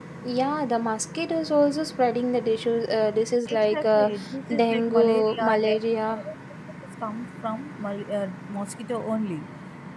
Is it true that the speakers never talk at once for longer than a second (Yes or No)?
No